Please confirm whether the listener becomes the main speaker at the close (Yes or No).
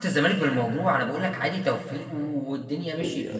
Yes